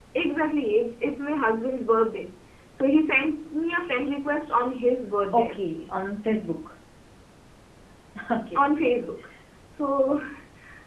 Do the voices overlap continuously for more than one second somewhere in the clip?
No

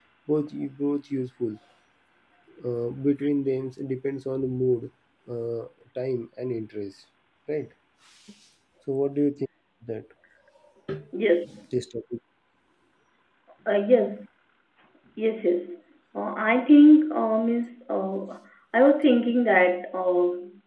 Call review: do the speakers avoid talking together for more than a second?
Yes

